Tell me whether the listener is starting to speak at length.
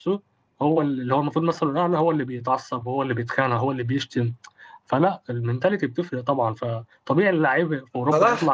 Yes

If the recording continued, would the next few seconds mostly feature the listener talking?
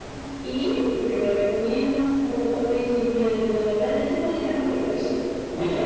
Yes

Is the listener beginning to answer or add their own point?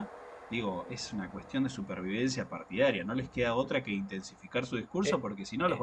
Yes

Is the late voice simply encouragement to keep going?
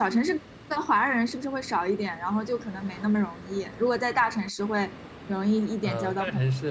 No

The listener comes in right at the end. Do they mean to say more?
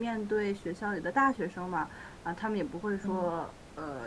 No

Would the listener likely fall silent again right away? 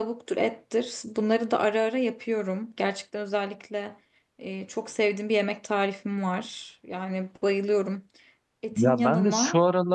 No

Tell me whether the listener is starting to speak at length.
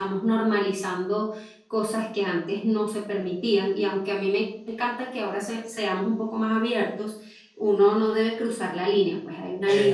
No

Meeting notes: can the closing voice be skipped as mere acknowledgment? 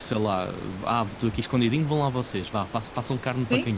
No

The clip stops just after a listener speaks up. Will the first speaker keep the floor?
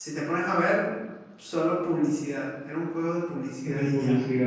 No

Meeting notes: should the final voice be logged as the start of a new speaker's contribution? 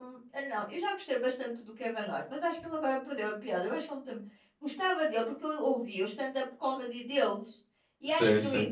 No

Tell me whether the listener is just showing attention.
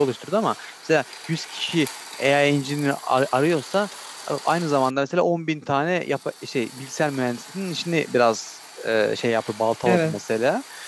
Yes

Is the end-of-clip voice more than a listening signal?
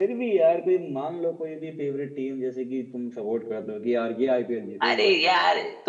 Yes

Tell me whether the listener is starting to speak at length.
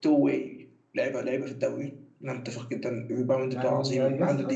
Yes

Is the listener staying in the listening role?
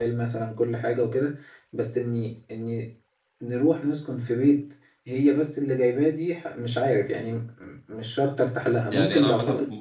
No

